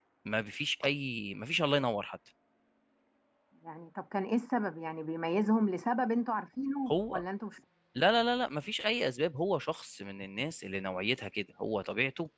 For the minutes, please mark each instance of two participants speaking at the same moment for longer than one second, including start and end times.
none

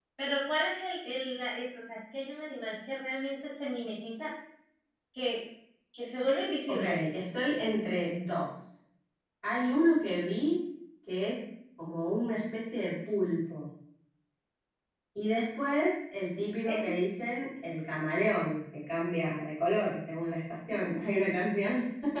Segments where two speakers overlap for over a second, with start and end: none

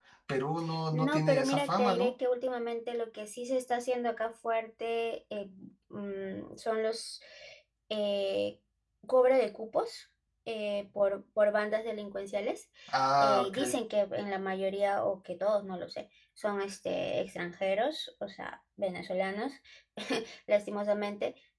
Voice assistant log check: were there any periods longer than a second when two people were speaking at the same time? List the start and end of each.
0.9-2.1

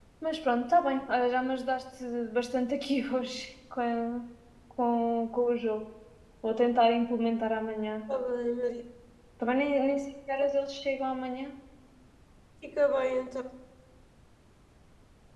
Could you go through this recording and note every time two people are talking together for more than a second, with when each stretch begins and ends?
none

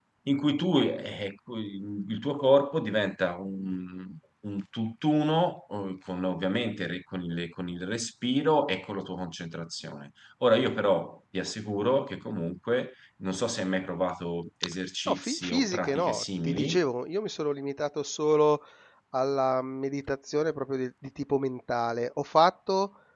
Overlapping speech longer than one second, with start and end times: 15.1-16.8

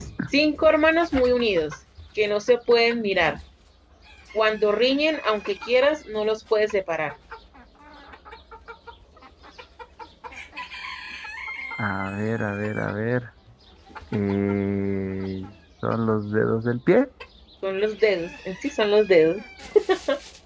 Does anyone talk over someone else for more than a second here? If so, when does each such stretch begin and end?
none

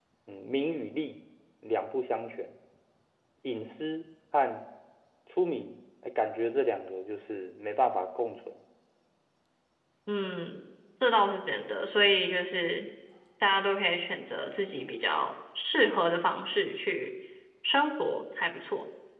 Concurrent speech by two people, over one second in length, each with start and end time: none

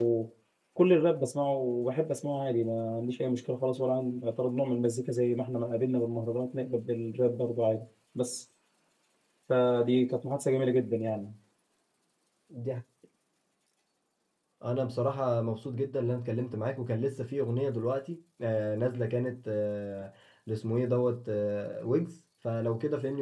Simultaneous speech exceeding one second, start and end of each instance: none

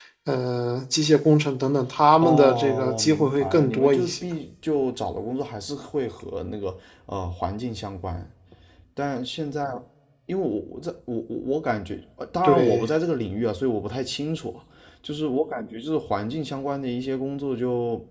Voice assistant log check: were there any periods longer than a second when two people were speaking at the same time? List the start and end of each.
2.2-4.2

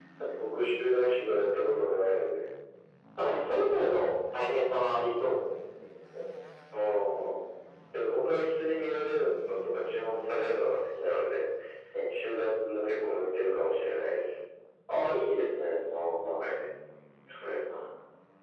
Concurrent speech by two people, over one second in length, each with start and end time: none

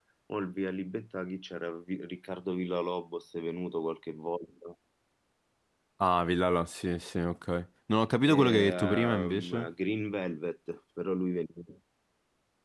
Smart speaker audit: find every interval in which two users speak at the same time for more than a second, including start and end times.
8.3-9.7

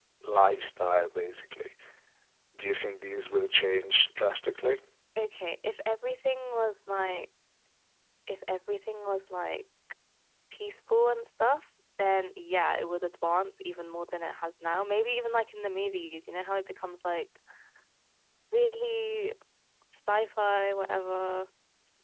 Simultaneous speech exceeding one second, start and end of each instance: none

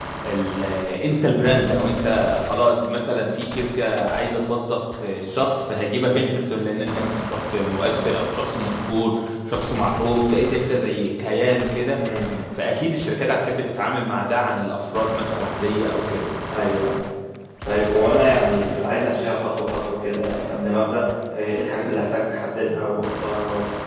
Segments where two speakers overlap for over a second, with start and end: none

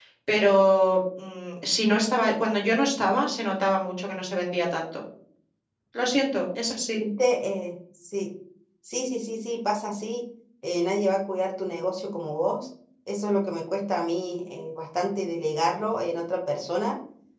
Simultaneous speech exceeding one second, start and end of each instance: none

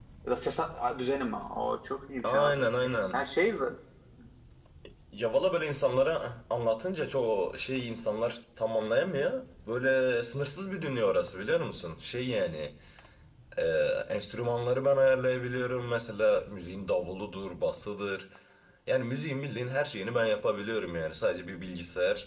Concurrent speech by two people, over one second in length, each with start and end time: none

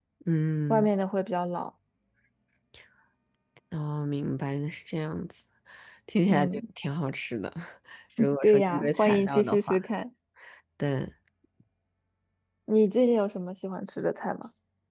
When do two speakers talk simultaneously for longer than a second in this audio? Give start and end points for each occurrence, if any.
8.4-9.8

